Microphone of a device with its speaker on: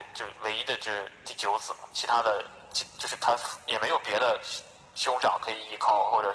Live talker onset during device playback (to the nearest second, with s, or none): none